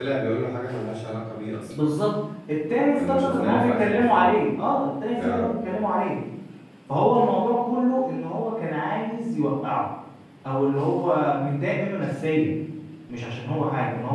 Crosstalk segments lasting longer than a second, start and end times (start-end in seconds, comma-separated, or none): 3.0-4.3